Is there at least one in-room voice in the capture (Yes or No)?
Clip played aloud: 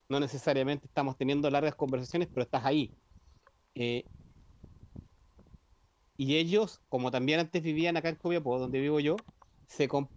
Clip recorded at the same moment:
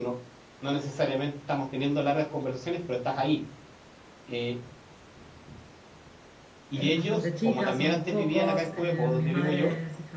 Yes